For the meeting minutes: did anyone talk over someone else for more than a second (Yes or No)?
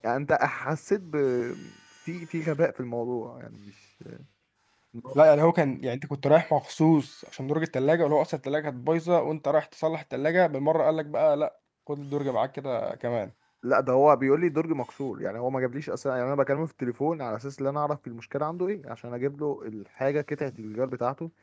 No